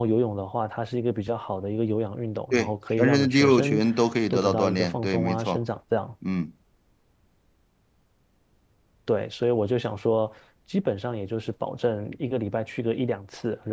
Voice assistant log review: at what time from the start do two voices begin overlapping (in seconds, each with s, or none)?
2.5 s